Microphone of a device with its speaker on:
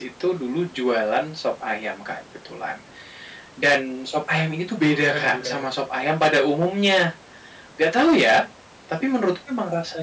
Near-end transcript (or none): Bukan bukan.